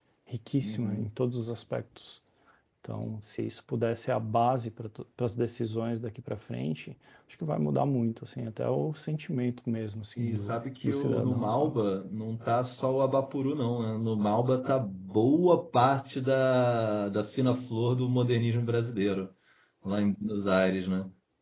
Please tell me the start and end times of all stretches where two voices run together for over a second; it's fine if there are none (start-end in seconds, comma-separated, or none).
10.2-11.8